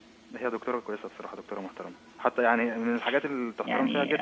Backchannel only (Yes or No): No